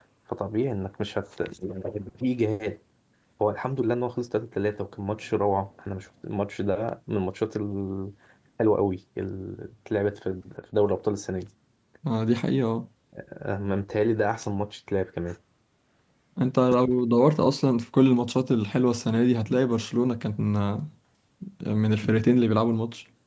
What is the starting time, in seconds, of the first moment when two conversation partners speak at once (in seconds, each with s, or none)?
none